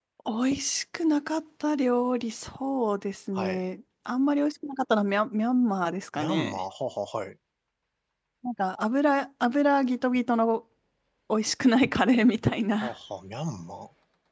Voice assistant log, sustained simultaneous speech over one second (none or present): none